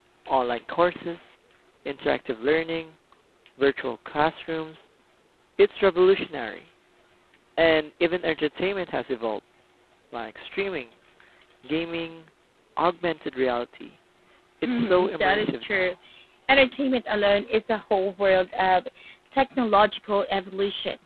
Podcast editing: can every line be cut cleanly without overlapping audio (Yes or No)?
No